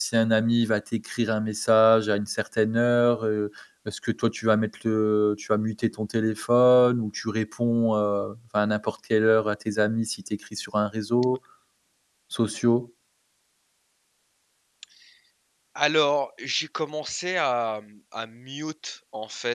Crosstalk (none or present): none